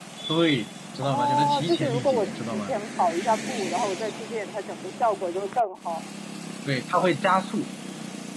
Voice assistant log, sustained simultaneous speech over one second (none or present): present